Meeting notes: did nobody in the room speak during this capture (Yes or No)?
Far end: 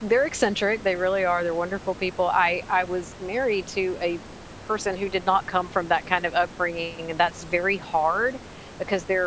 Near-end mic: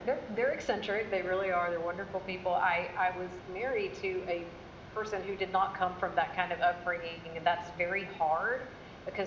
Yes